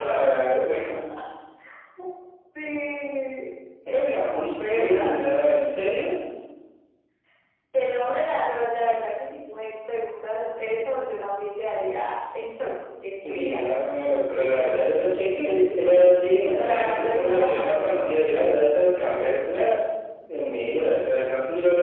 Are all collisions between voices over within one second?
No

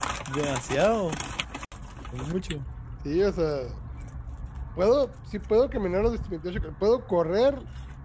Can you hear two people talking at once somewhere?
No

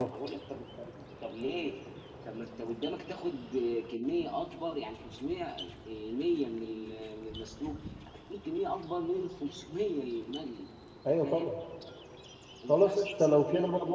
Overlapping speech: Yes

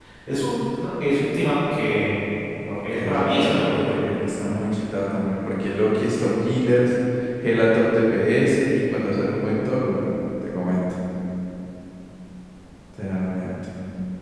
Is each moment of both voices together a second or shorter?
No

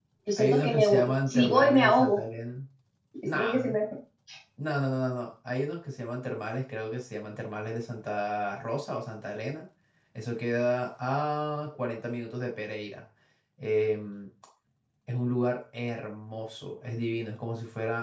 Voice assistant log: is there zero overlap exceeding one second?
No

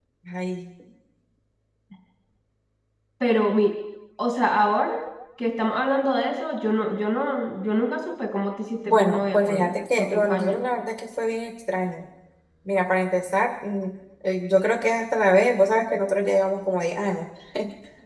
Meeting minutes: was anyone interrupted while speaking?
Yes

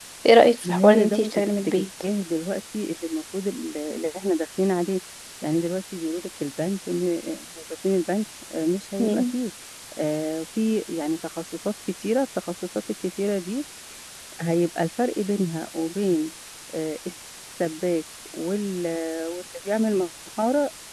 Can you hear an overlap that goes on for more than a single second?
Yes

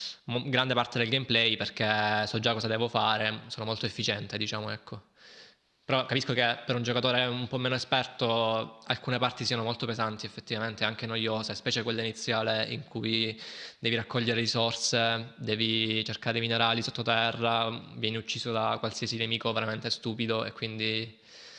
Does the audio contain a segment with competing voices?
No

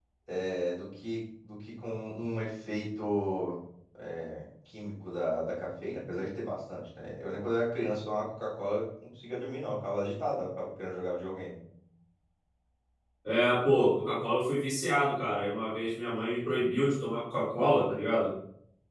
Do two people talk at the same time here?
No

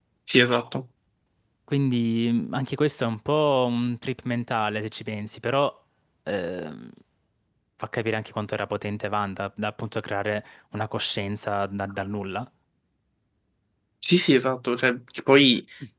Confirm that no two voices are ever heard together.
Yes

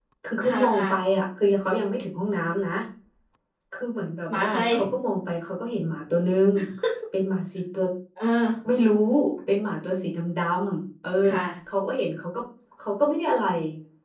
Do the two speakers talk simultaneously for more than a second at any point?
No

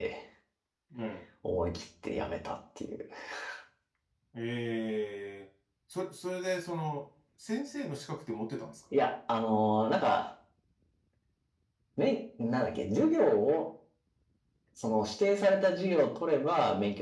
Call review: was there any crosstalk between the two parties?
No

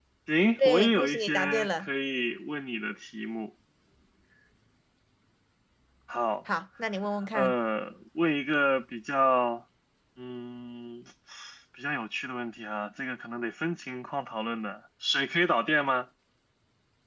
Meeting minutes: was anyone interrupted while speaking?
Yes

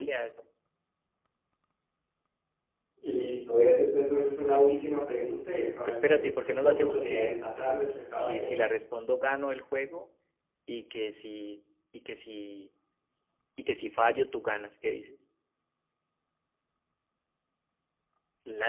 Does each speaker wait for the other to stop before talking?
No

